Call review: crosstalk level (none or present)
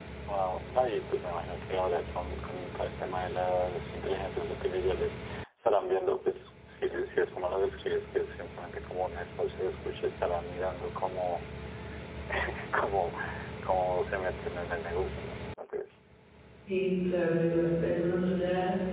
none